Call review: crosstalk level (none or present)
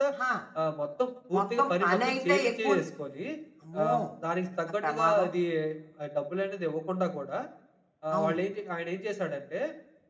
present